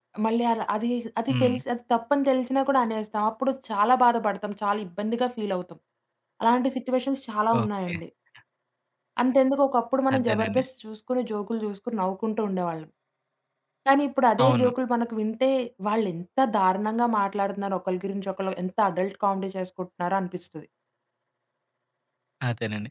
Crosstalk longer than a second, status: none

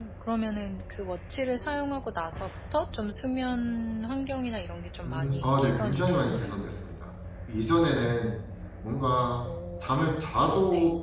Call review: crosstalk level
present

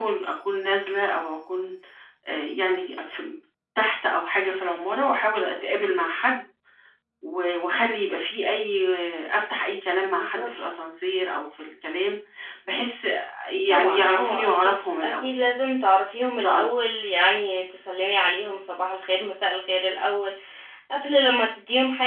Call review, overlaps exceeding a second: present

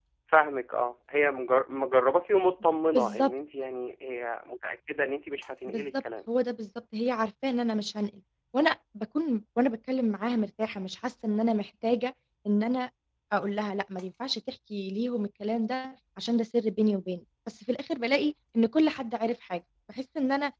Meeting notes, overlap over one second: none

